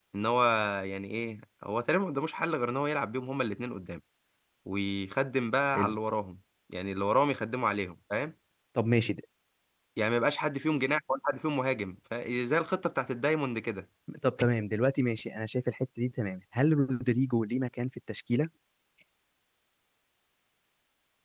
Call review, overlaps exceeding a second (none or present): none